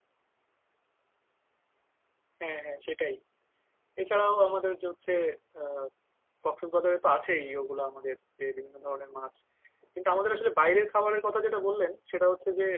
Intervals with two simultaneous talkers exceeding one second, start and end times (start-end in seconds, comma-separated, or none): none